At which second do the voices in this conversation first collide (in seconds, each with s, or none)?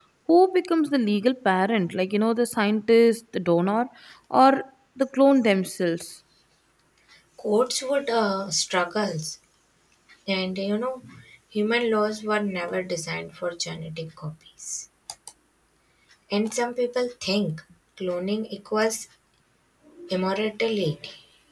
none